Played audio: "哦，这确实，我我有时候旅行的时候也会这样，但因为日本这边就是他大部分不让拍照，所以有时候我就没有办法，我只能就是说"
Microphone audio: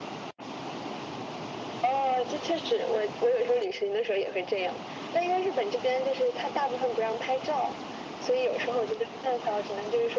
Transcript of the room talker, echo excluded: none

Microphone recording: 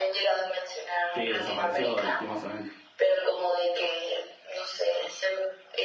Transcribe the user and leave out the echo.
Sí, desapareció lastimosamente.

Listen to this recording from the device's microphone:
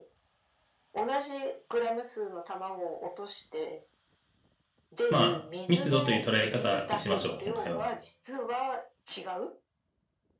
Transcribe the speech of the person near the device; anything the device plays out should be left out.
まあ、密度という捉え方にしましょう、今回は。

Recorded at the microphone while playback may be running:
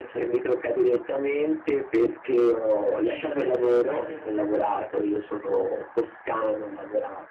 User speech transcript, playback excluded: mentre il paese...

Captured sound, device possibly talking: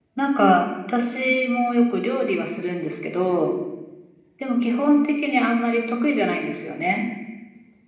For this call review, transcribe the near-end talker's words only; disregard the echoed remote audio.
none

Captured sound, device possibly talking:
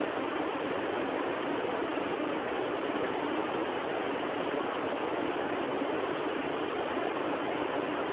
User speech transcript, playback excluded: none

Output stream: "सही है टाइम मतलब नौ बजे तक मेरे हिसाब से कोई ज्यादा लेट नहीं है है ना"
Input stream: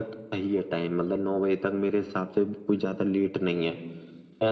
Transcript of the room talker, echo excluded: none

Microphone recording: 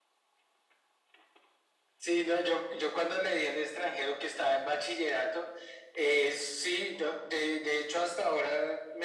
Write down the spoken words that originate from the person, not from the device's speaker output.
none

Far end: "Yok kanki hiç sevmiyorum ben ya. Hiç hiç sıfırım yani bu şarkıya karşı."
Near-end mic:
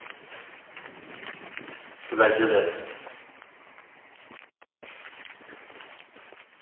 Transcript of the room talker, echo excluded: Bence de.

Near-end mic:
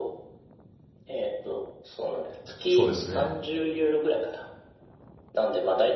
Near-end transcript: そうですね。

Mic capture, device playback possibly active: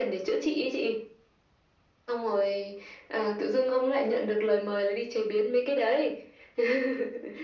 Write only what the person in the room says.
none

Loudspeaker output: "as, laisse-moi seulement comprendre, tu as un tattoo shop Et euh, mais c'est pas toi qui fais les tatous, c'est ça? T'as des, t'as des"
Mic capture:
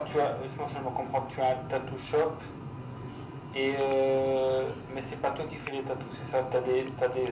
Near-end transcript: none

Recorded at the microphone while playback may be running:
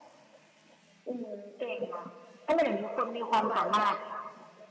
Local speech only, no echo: หวานใจ

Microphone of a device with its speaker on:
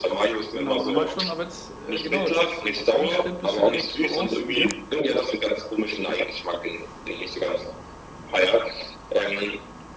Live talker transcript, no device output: Genau, normal schon, aber jetzt, äh, genau, jetzt hast du einen Schritt, bist du direkt voraus mir.

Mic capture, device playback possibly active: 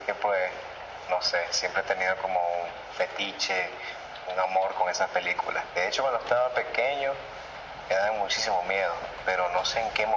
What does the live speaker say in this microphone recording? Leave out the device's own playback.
none

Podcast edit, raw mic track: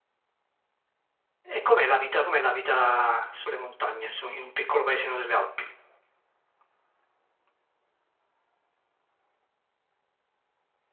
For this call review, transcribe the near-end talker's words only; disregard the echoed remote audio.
E com'è la vita, com'è la vita sulle montagne, su- in un piccolo paesino delle Alpi?

